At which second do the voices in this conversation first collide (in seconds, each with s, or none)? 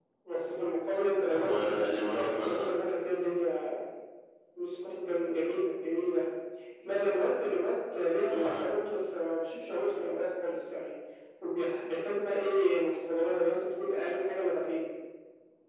1.3 s